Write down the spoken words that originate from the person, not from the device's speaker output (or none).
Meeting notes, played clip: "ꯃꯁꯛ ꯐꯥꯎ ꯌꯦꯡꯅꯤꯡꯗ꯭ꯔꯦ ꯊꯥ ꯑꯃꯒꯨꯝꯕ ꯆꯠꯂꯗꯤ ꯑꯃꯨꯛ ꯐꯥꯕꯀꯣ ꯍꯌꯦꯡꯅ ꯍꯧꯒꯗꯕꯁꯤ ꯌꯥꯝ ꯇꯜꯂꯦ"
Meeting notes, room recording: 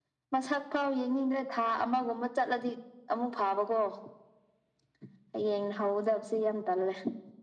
none